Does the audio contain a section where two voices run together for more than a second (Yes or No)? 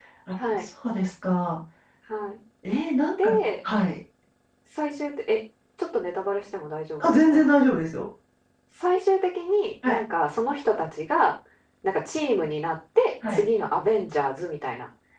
No